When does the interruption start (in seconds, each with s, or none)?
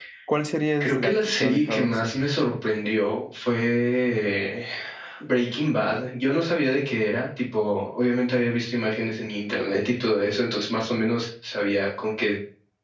0.8 s